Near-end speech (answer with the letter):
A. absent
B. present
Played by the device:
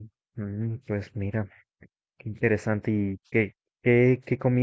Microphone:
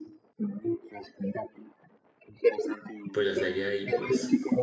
B